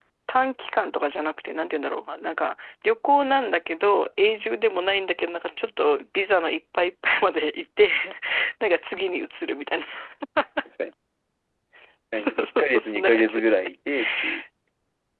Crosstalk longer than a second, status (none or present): present